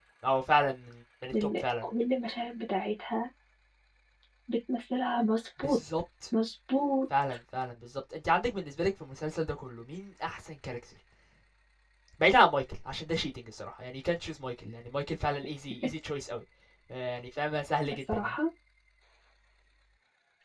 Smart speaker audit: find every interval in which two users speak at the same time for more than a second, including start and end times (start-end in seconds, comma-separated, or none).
none